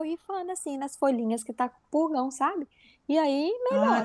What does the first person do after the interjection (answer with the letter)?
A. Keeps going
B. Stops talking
B